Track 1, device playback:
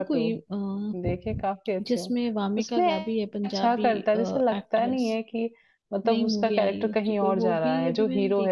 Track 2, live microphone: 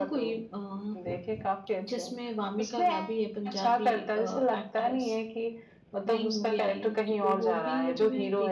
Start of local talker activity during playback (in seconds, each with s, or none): none